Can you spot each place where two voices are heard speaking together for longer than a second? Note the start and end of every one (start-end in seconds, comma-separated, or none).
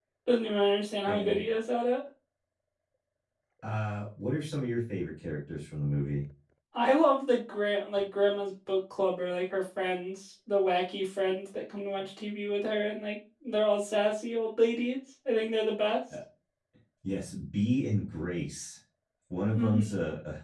none